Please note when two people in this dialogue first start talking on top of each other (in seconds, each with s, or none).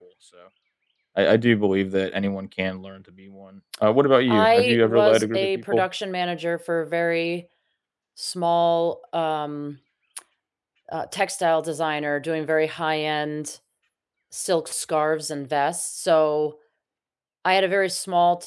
4.3 s